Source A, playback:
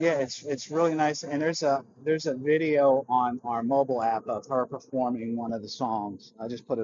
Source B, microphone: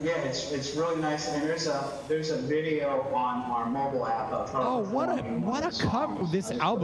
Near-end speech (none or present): present